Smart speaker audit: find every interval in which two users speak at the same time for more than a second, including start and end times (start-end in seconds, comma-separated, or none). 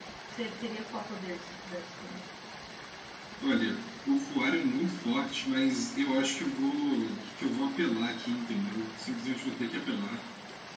none